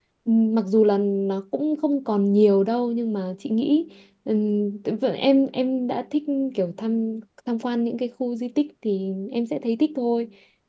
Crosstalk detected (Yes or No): No